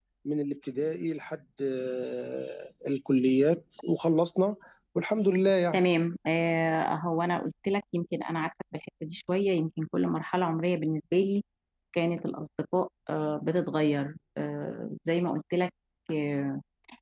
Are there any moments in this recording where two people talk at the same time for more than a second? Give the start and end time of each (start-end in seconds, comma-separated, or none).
none